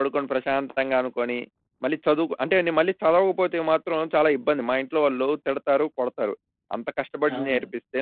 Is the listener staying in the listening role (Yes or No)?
Yes